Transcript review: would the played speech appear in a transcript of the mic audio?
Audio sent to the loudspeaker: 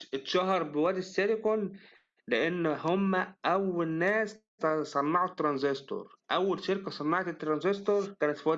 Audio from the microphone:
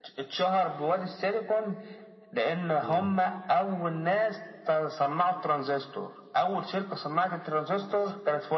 Yes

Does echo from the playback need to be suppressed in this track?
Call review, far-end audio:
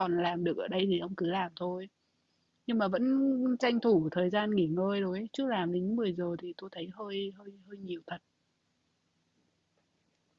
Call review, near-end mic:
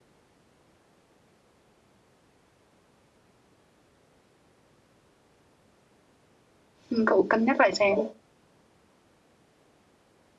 No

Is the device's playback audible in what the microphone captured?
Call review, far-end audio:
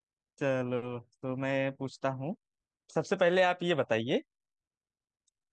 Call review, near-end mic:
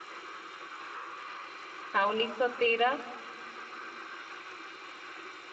No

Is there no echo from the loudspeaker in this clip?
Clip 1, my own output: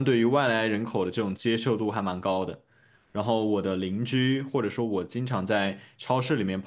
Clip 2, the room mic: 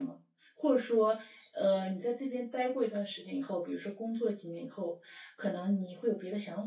Yes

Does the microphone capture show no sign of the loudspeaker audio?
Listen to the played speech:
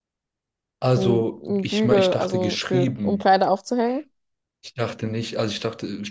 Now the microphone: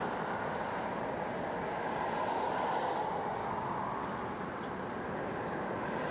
Yes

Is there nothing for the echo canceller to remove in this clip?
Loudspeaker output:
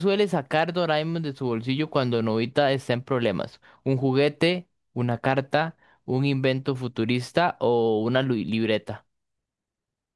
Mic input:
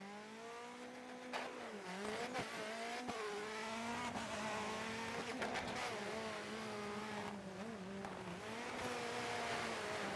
Yes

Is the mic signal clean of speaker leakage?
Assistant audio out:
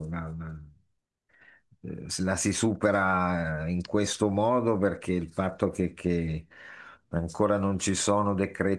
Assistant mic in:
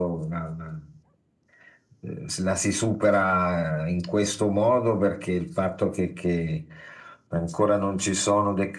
No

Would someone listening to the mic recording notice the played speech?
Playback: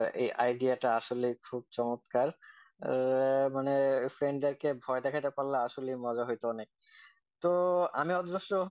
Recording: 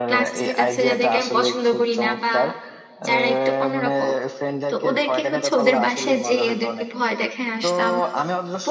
Yes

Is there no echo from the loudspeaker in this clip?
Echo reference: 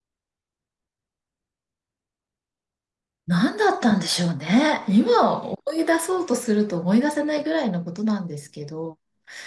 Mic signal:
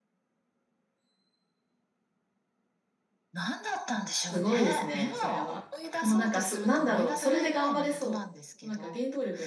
No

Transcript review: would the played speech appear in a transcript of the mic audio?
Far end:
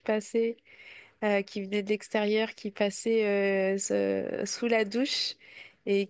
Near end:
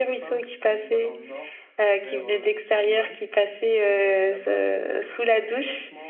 Yes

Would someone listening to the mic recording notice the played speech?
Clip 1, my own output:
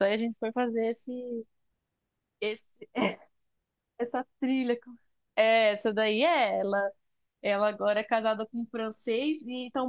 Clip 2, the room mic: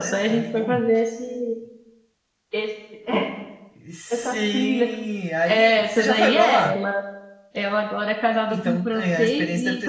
Yes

